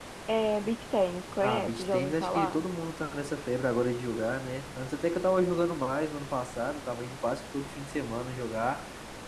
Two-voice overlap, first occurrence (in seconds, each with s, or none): 1.4 s